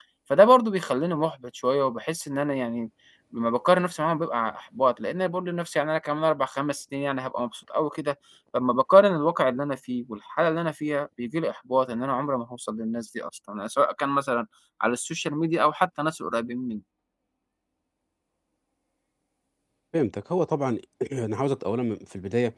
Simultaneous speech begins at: none

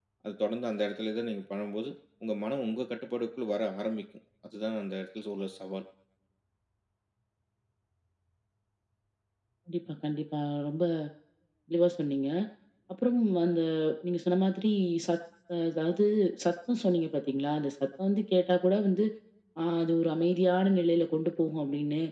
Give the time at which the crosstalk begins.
none

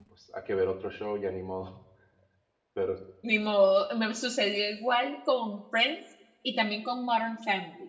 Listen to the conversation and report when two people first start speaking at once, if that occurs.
none

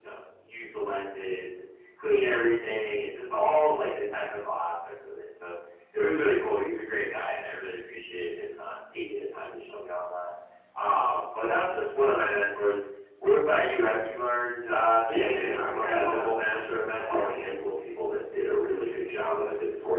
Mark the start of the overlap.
15.2 s

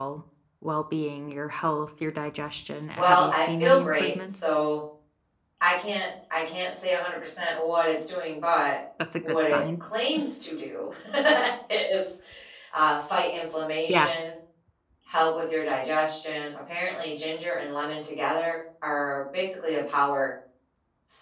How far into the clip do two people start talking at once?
3.0 s

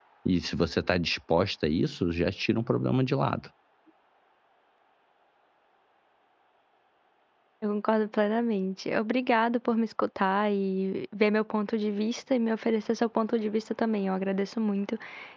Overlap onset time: none

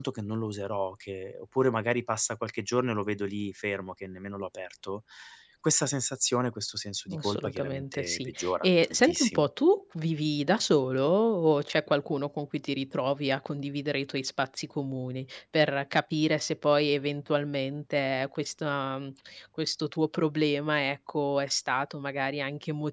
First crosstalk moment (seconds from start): 7.1 s

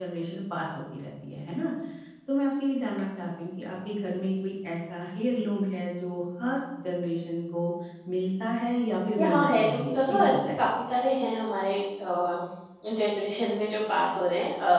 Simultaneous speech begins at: 9.2 s

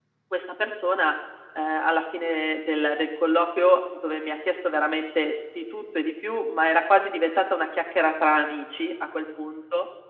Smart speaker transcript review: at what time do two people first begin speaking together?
none

